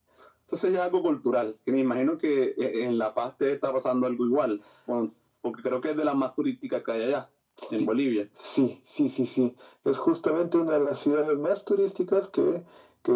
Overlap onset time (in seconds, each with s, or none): none